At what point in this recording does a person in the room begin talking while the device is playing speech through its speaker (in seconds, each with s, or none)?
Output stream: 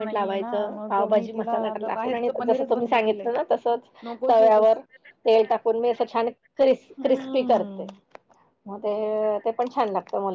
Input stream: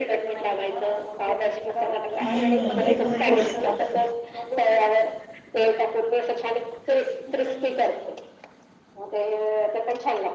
2.2 s